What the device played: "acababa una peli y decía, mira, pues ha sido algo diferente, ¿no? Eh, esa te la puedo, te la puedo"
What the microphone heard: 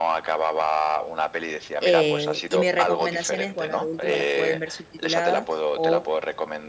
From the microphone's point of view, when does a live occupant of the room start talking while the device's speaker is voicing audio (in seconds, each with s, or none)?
1.8 s